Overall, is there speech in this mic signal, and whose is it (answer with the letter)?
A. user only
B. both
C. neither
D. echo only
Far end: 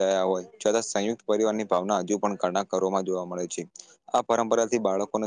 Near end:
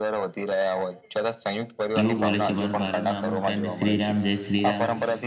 B